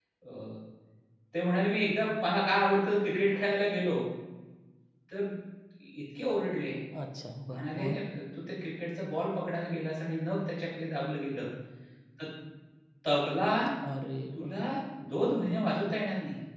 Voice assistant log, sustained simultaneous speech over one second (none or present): none